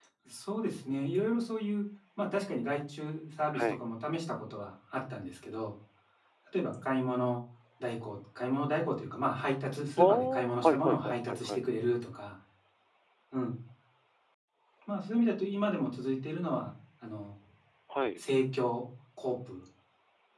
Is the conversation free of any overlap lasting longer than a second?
No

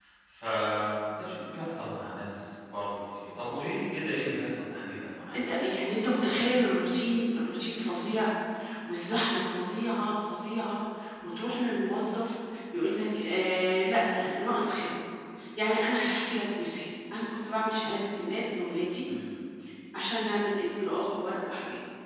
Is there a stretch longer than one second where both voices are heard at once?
No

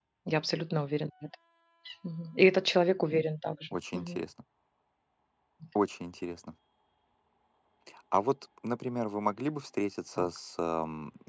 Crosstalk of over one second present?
No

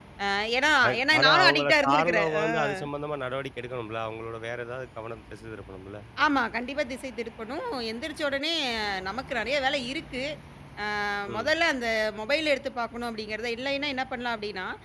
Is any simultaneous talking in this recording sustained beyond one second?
Yes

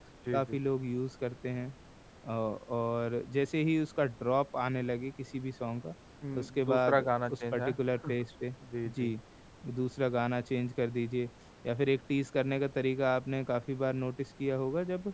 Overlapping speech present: Yes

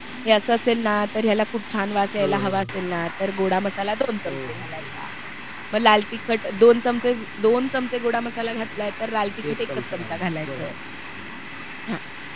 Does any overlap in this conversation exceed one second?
Yes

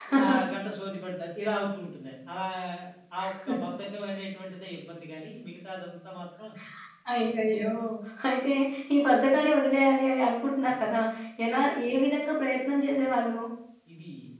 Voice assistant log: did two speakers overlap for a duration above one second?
No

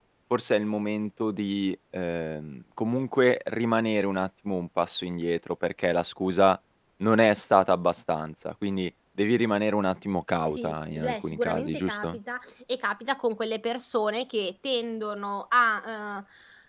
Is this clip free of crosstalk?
No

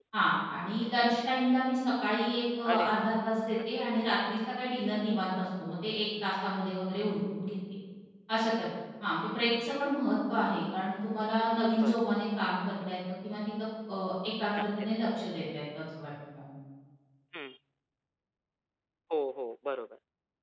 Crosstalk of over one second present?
No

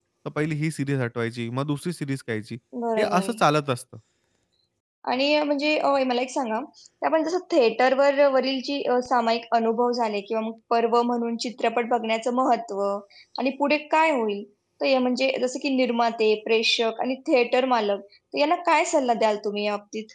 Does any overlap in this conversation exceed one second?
No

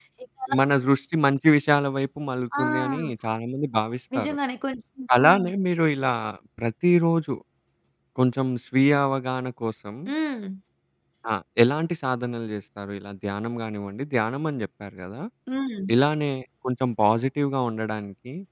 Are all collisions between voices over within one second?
Yes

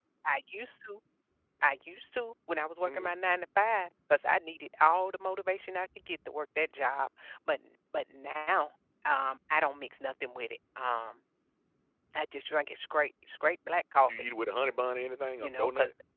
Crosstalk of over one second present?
No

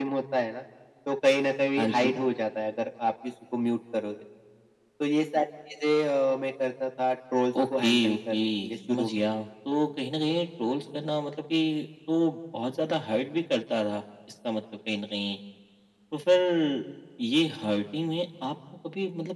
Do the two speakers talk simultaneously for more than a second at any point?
Yes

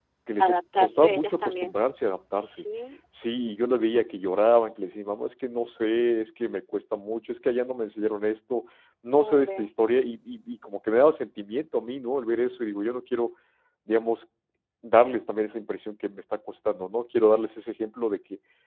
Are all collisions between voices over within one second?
No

